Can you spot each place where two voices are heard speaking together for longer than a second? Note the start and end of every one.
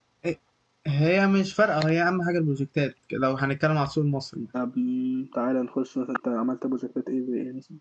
none

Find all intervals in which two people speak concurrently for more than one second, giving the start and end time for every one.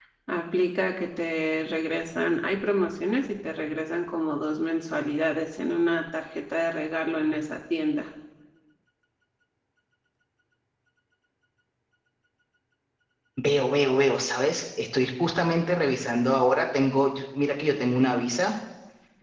none

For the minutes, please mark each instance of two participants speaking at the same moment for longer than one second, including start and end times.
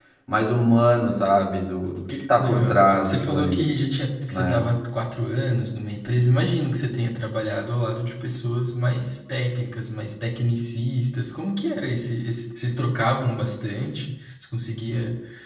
2.4-3.7

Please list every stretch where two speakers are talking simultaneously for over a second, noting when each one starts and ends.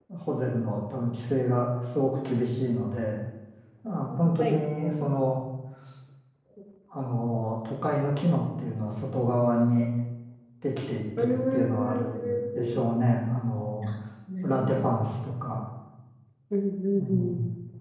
11.2-12.8

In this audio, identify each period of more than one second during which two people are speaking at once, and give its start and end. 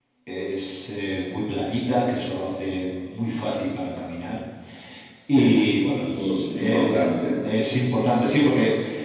6.2-7.4

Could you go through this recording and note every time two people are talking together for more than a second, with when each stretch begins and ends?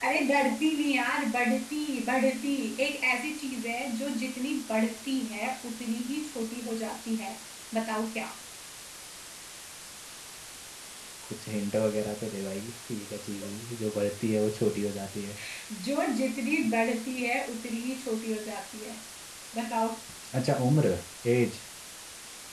none

